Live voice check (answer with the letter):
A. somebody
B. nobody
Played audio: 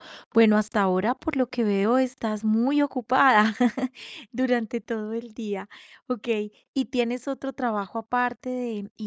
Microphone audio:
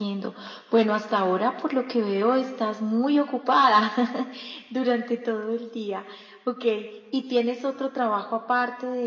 B